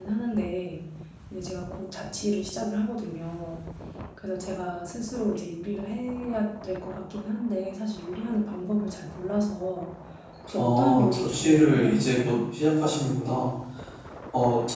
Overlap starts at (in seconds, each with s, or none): 10.6 s